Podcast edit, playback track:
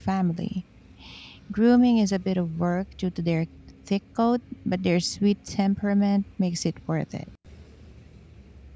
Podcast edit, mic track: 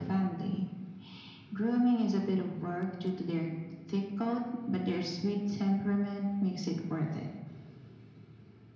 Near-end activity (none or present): none